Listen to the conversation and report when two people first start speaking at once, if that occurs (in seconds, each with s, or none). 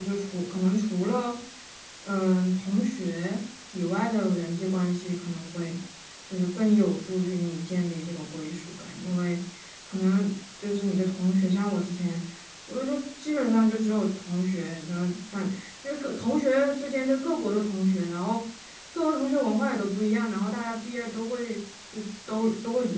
none